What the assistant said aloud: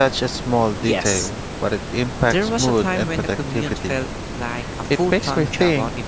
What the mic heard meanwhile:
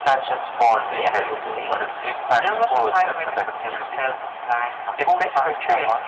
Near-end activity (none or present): present